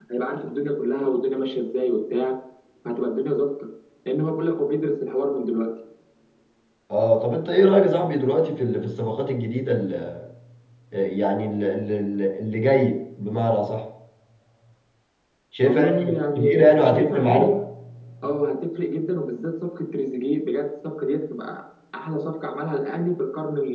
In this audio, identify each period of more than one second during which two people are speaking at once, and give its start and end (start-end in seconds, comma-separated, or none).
15.6-17.5